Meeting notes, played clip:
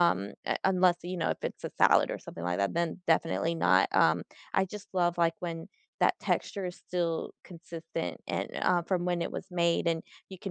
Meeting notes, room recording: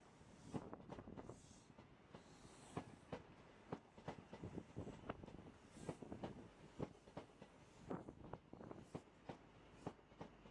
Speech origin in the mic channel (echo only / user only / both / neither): neither